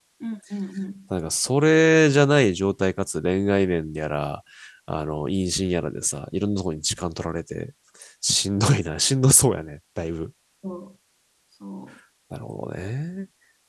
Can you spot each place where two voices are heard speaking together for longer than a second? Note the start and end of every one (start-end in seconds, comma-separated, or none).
none